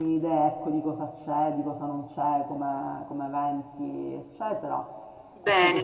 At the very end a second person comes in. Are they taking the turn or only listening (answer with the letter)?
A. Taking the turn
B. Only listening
A